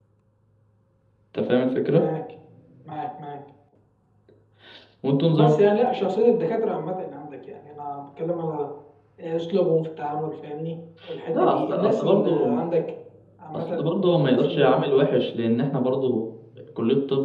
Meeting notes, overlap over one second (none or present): present